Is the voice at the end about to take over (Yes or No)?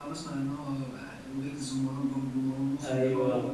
Yes